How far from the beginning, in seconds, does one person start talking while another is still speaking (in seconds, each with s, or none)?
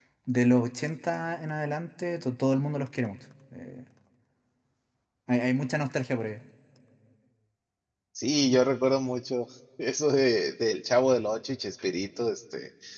none